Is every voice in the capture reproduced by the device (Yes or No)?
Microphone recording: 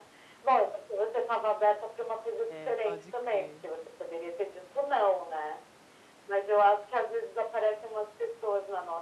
No